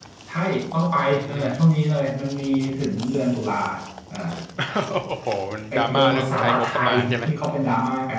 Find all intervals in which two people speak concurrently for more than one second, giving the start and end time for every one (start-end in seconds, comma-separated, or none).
5.7-7.2